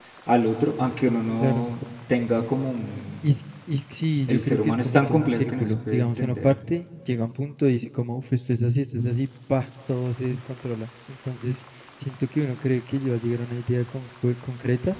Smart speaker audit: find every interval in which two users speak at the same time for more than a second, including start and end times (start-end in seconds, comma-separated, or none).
4.3-6.5